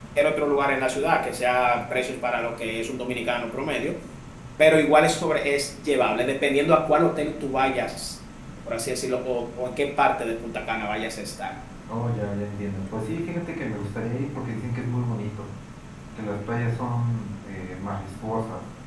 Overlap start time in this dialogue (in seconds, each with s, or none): none